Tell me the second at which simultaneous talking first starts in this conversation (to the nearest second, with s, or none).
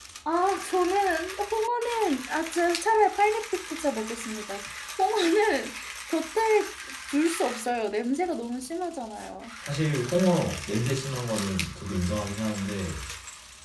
none